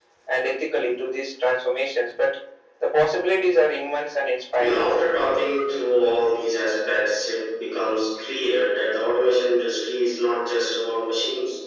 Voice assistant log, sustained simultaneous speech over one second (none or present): none